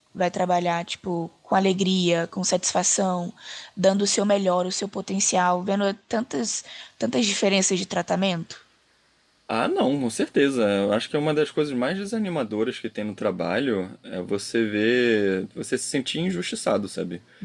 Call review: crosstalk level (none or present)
none